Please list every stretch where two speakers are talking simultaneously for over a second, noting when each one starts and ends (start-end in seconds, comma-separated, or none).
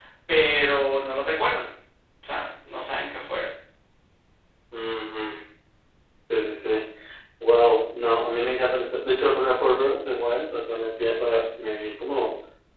none